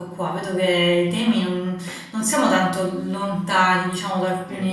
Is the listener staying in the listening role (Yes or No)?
Yes